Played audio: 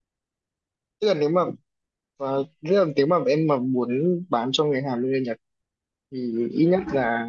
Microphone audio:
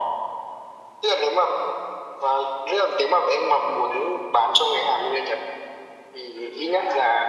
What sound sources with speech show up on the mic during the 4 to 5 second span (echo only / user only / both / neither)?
echo only